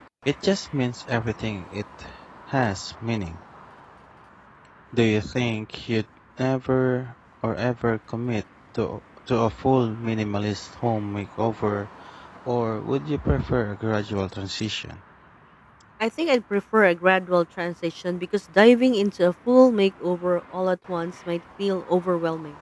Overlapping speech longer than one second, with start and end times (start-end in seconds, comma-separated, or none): none